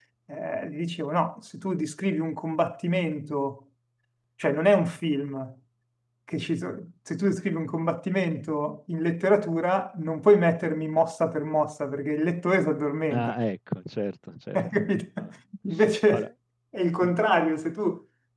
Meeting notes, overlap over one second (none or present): none